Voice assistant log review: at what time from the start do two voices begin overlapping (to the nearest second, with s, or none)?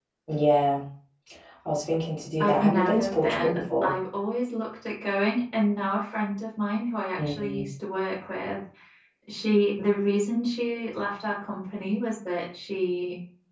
2 s